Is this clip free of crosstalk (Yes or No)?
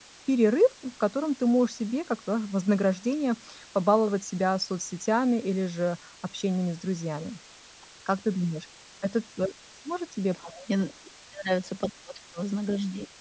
Yes